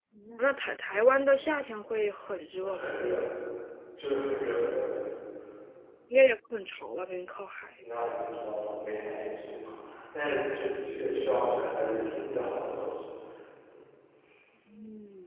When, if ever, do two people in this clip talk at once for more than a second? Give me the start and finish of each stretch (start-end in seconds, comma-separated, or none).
none